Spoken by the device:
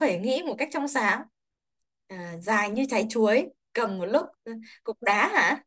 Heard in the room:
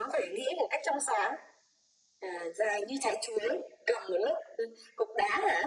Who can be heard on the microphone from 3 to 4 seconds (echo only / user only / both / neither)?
echo only